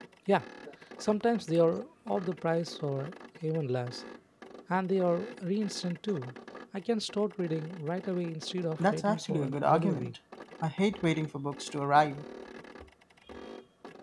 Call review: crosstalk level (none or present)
present